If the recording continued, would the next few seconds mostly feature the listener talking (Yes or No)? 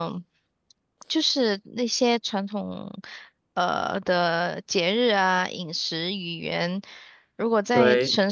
No